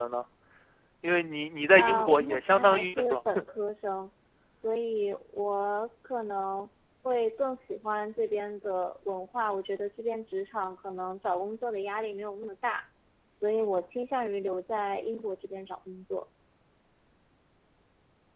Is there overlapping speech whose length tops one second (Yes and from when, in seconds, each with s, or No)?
Yes, from 1.8 s